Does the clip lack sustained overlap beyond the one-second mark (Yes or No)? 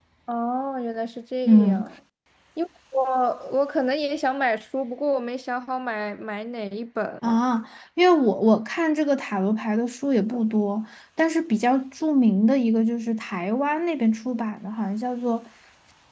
Yes